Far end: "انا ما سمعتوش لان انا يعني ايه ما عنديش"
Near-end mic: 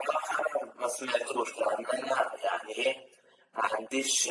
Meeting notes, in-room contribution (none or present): none